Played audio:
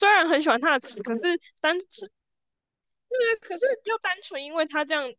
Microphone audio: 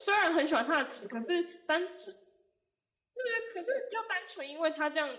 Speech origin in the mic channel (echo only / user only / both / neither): echo only